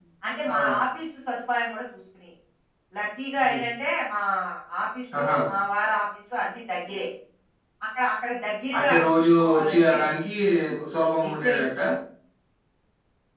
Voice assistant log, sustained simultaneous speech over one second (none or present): present